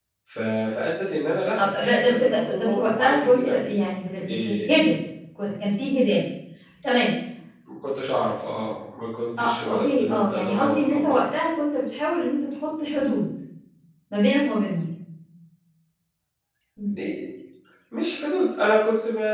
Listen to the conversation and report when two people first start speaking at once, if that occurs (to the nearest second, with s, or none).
2 s